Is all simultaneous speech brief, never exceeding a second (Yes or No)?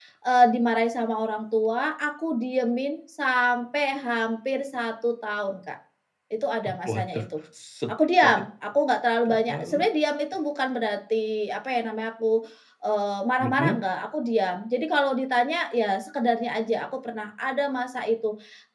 Yes